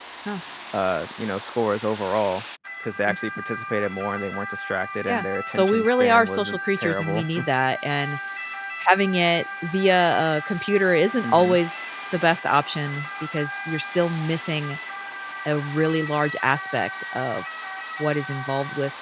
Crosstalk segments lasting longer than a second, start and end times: 5.1-7.3

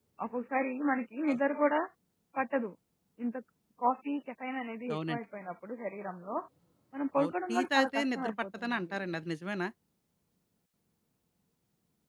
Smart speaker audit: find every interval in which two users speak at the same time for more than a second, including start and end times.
7.2-9.0

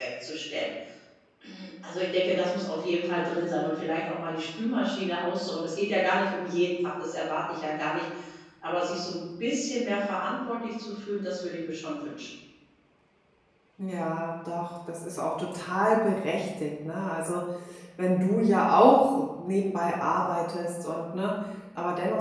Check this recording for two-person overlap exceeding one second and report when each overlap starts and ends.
none

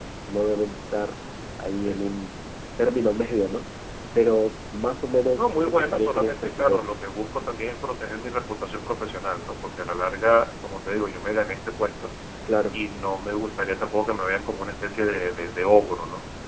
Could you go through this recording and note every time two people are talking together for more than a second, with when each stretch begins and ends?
5.4-7.0

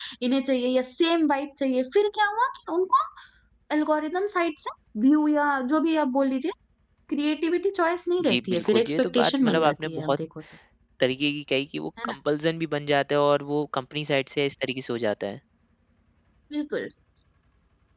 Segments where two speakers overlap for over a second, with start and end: 8.3-10.2

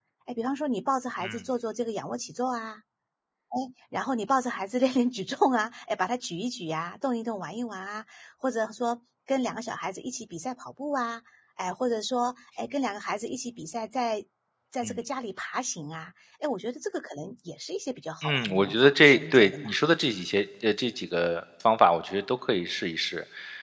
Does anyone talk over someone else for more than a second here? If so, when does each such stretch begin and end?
18.2-19.7

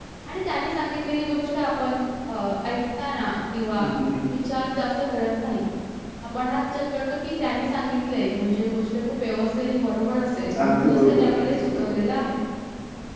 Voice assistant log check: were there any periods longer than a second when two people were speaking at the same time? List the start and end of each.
10.6-12.0

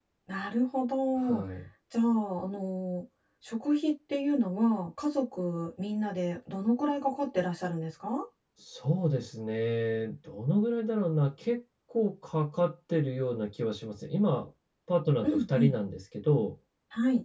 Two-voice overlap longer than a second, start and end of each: none

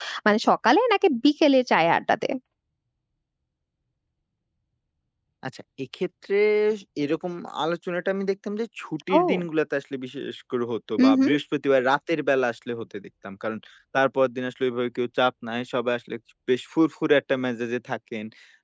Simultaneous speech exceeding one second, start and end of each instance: none

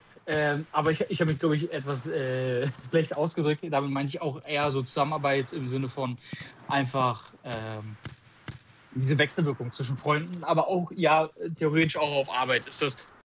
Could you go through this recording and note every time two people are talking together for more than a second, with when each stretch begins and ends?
none

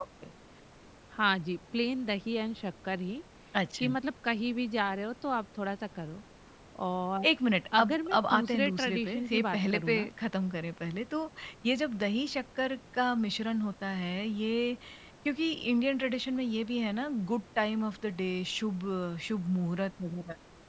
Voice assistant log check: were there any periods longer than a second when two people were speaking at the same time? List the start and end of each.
7.8-10.1

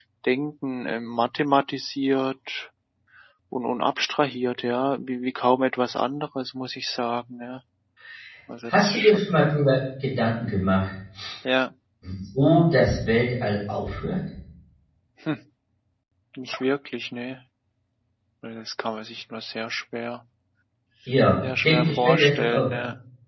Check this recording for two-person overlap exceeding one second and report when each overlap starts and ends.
21.4-22.6

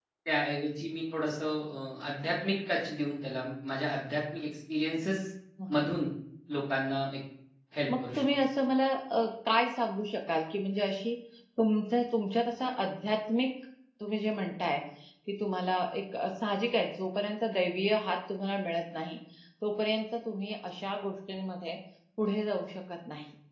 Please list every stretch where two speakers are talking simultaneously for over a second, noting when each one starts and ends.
none

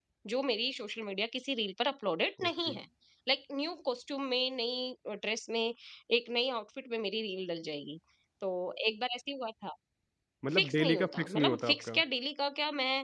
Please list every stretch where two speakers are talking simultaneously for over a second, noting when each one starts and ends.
10.5-12.0

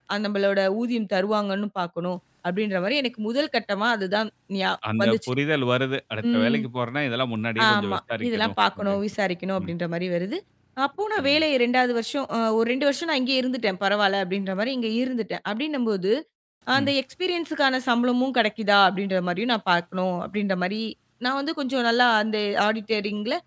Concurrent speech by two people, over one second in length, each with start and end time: 7.7-9.0

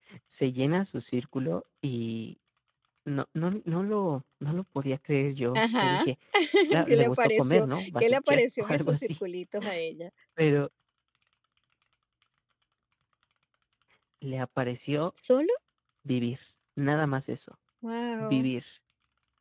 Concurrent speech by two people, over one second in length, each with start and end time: 6.9-9.1

